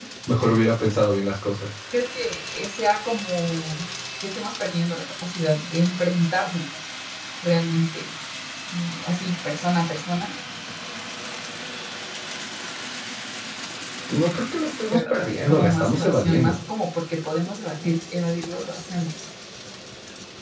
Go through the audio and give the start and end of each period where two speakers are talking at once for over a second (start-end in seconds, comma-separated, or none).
14.9-16.6